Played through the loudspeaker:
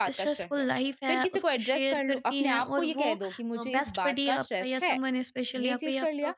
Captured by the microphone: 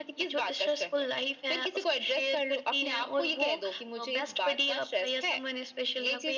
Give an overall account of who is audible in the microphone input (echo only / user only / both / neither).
echo only